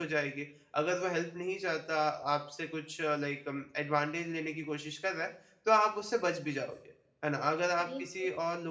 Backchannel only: Yes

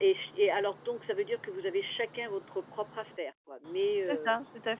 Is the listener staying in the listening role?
No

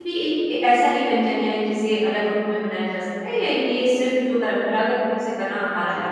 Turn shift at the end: No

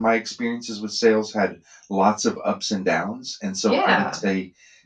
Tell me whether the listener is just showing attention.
Yes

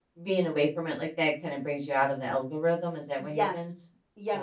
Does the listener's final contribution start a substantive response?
Yes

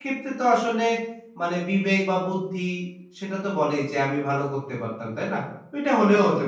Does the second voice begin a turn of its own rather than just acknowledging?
Yes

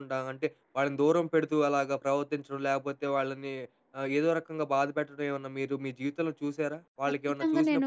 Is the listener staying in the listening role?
No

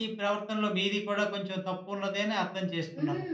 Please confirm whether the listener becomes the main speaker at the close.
Yes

